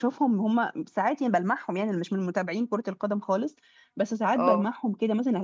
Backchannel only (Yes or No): Yes